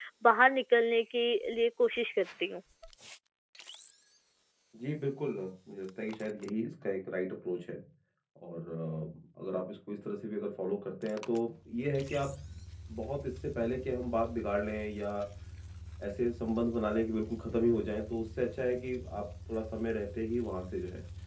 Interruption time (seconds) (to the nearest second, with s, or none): none